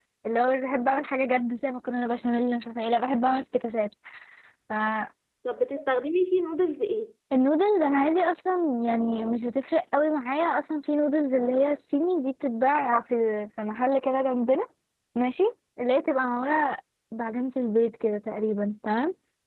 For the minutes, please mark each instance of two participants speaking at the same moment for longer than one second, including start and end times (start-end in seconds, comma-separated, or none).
none